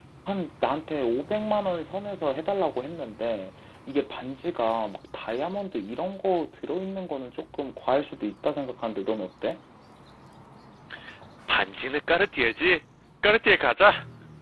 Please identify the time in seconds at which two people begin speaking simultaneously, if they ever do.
none

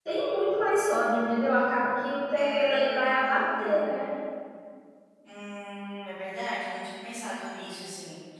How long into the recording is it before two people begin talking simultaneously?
2.3 s

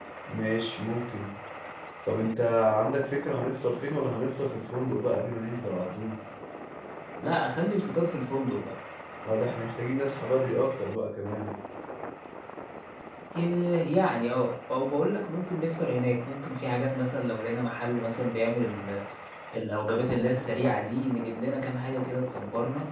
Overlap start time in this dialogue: none

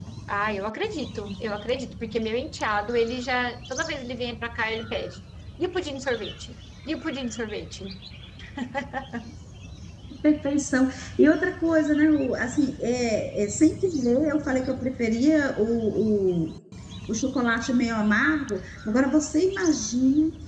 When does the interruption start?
none

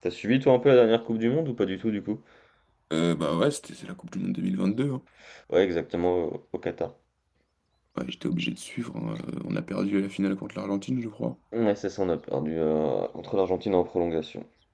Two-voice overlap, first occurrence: none

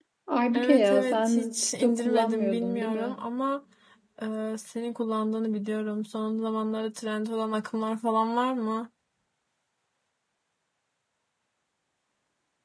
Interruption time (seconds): 0.5 s

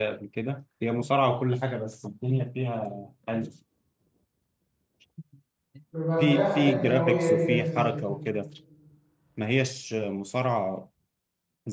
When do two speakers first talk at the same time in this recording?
6.2 s

